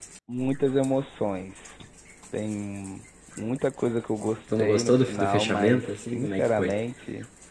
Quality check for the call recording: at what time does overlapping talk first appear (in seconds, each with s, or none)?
4.5 s